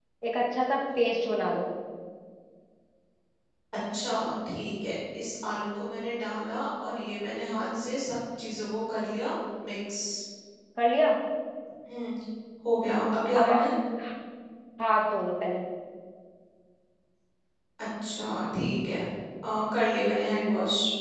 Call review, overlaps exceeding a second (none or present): none